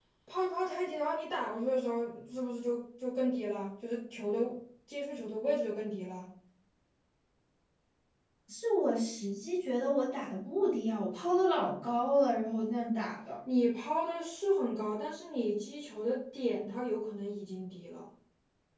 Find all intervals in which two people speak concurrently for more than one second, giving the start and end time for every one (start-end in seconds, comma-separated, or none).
none